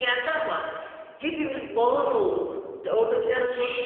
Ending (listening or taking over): listening